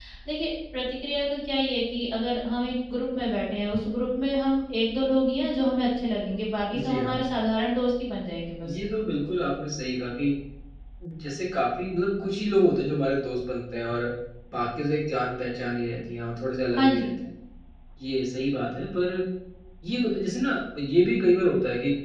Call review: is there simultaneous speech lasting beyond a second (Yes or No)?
No